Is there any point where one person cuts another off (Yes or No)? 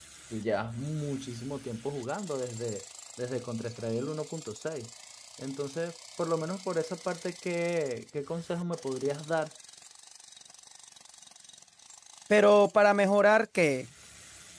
No